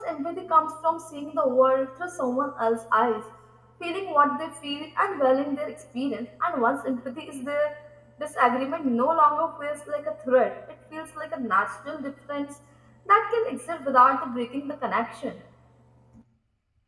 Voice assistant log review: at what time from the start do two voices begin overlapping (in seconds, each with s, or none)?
none